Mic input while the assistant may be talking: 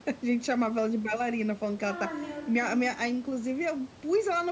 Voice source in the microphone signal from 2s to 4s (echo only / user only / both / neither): both